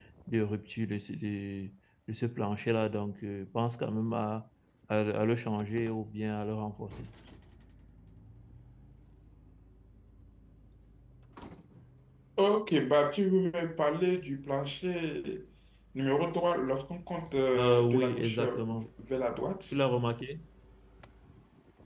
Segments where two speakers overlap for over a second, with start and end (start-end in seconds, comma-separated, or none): 17.6-18.9